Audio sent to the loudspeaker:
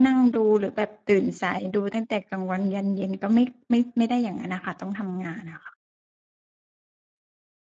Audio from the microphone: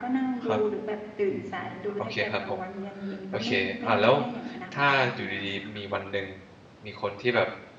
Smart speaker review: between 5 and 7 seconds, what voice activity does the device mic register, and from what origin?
both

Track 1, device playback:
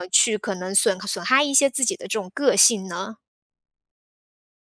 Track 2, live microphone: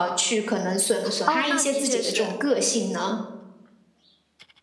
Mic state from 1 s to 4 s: both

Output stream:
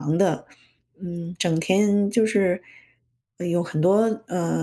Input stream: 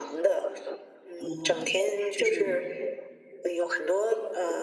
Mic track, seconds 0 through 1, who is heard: echo only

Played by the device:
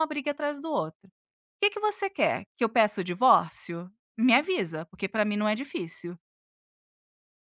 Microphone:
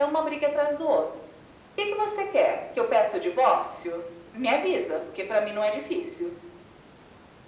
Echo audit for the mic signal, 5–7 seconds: echo only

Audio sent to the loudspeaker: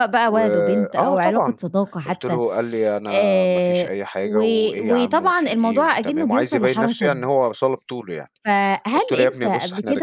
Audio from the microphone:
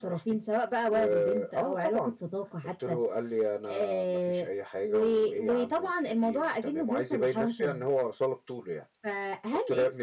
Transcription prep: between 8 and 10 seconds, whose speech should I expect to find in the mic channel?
echo only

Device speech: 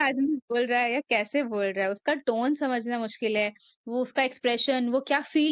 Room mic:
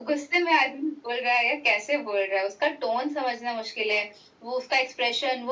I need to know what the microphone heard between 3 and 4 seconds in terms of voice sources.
echo only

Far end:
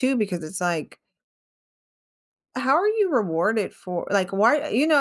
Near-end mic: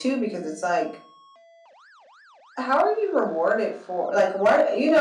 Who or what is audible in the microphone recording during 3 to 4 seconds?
echo only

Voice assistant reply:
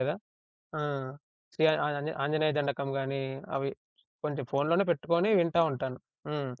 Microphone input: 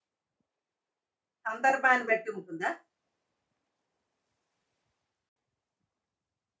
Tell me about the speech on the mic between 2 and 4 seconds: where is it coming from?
user only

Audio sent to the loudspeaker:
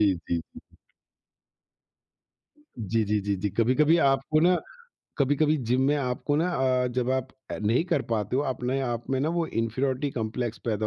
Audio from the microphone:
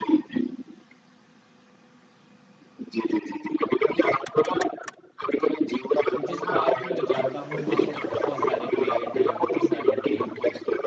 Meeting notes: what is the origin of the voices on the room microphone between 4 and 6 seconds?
echo only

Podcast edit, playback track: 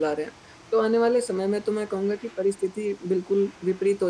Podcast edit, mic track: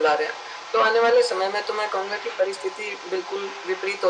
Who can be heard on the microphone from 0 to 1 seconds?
echo only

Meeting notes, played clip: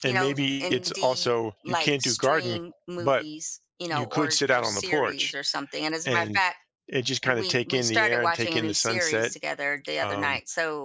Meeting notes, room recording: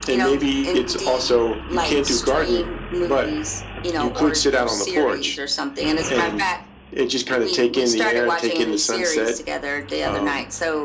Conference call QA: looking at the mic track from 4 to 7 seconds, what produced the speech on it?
echo only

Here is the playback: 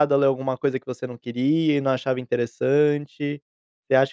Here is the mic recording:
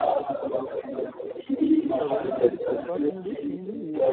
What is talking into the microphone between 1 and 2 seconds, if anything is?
both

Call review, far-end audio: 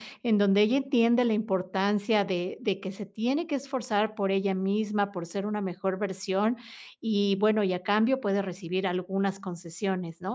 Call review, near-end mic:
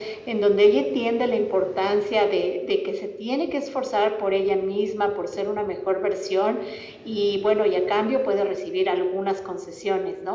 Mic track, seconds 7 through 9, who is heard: echo only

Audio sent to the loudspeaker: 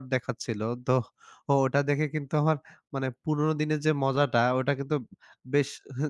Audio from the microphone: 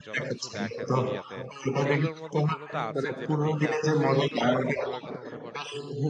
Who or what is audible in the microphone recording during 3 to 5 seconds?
both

